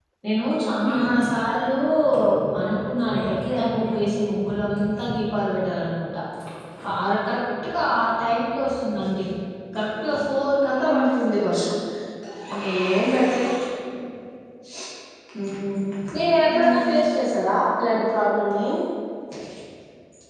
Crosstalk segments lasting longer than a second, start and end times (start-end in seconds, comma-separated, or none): 2.7-4.2